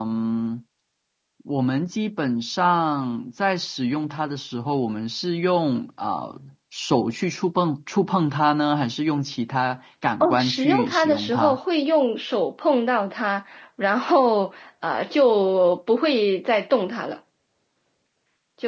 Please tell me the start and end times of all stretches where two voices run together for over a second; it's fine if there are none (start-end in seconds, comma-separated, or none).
10.2-11.6